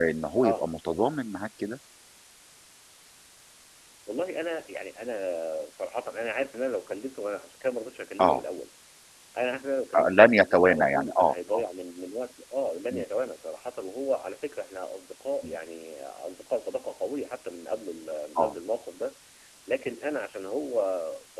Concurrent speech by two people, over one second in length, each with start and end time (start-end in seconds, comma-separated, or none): 10.0-11.6